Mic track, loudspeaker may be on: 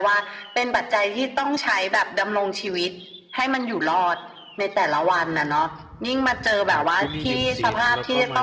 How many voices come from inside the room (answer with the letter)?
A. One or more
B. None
A